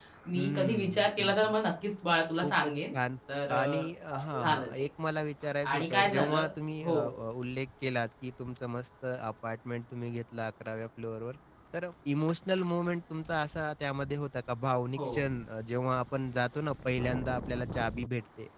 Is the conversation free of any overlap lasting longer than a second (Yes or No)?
No